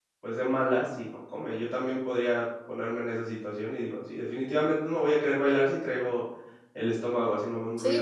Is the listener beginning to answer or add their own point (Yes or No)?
Yes